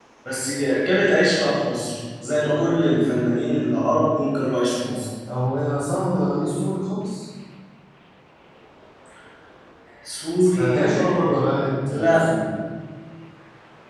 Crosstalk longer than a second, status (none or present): present